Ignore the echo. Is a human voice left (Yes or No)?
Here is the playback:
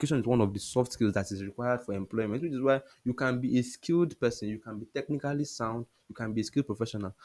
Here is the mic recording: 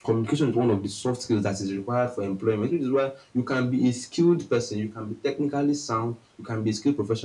No